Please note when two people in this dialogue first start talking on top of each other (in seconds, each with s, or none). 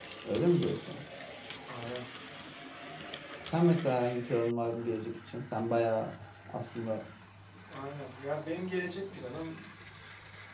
none